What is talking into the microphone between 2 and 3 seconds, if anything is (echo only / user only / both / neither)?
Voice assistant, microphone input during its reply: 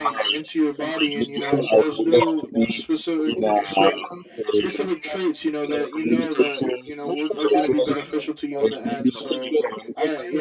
both